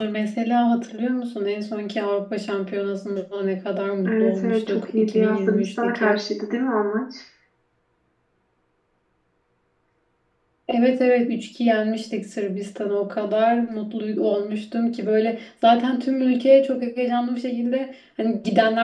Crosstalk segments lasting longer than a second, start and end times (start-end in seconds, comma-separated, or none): 4.1-6.2